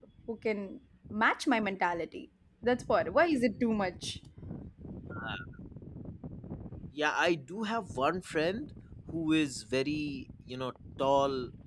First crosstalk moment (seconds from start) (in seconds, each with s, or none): none